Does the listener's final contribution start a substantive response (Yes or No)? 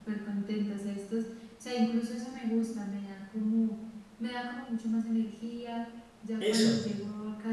No